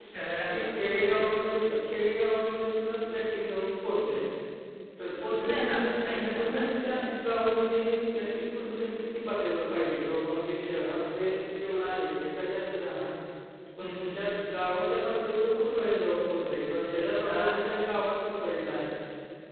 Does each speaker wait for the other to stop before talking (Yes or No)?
No